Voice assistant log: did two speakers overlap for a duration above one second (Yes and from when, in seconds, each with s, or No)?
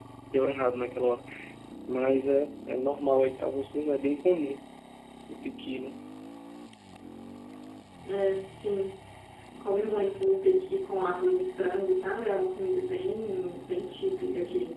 No